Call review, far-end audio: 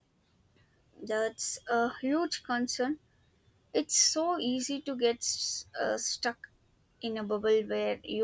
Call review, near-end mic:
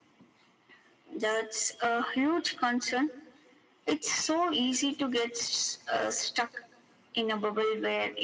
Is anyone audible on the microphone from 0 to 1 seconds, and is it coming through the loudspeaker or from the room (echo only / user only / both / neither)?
neither